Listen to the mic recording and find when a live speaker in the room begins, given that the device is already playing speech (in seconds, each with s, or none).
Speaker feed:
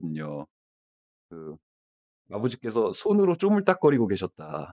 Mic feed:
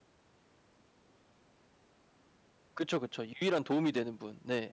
2.7 s